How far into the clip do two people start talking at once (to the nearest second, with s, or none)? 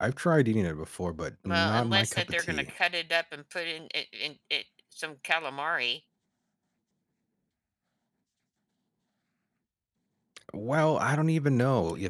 1 s